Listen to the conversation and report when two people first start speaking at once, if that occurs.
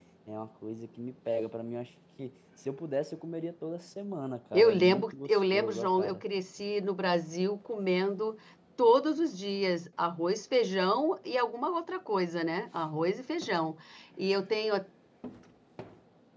5 s

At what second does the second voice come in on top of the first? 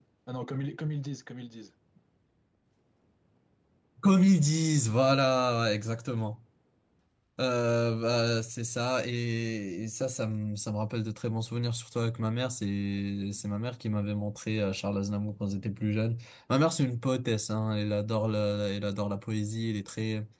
none

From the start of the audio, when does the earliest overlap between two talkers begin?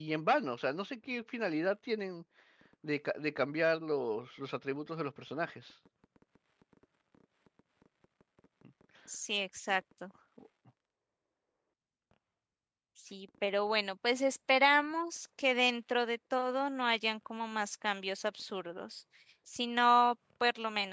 none

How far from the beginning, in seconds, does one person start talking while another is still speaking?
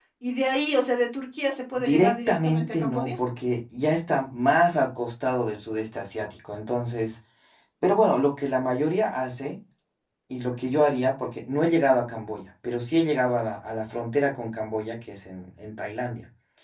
2 s

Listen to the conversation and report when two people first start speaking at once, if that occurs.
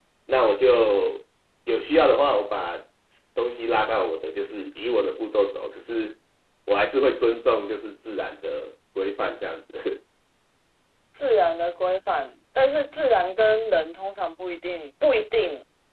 none

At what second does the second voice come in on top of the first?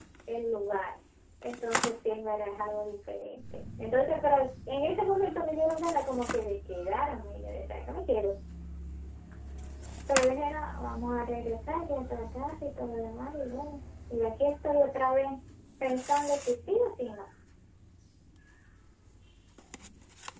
none

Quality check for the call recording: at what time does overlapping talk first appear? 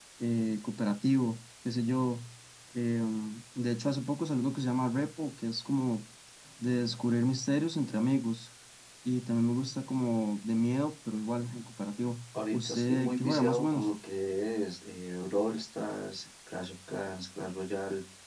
12 s

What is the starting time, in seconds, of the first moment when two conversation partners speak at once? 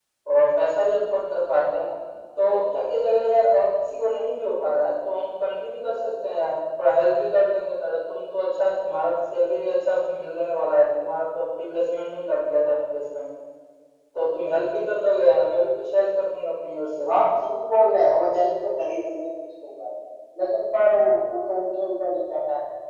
none

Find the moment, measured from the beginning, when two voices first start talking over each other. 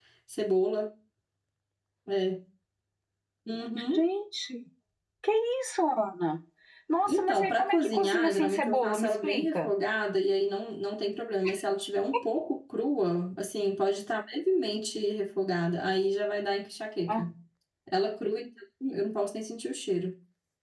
7 s

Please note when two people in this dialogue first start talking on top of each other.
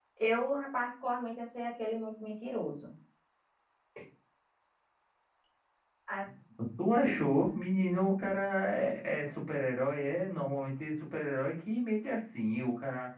none

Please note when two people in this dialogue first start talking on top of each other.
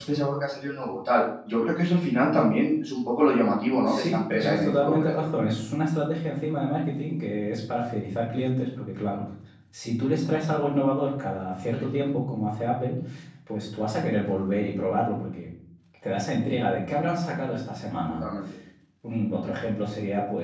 4 s

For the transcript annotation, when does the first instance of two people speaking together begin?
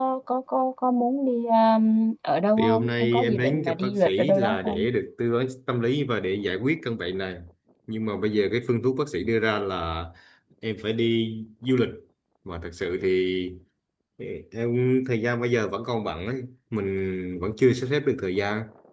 3 s

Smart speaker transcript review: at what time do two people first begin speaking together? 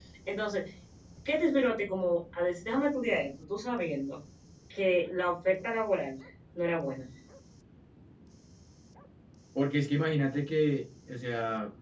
none

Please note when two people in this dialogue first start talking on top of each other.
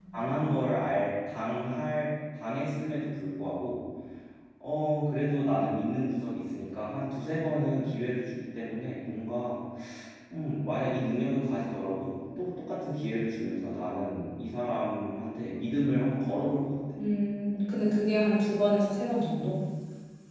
none

